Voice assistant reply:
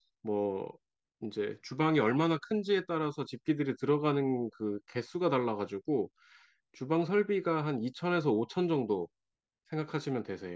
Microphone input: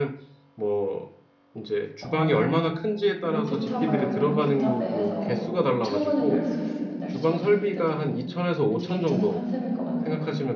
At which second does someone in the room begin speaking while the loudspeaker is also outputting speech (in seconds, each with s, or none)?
2.0 s